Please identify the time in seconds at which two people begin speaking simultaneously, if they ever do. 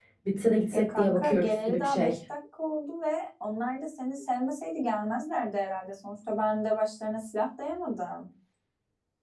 0.7 s

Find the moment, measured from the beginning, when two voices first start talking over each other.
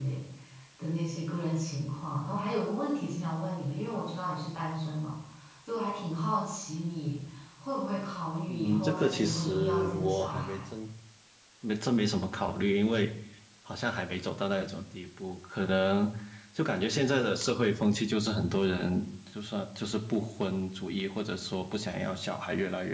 8.5 s

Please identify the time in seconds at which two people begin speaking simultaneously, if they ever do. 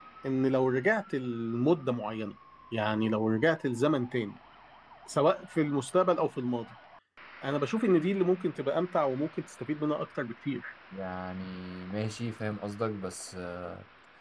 none

